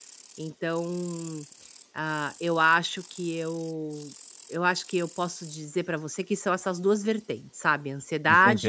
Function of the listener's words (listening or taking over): taking over